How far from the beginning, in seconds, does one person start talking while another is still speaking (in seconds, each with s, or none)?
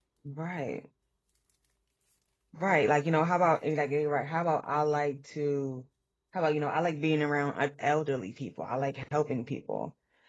none